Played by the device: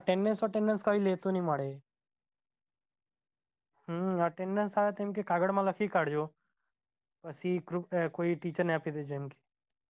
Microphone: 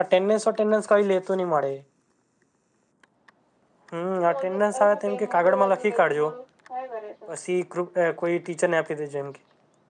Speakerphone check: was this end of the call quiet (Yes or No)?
No